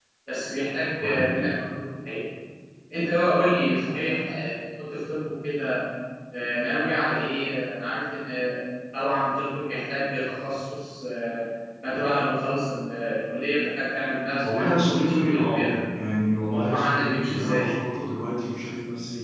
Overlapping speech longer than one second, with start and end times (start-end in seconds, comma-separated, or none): 14.4-15.8, 16.5-17.8